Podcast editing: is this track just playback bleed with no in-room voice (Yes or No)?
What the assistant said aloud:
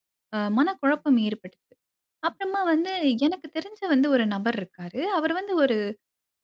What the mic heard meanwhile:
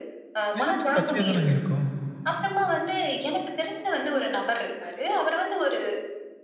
No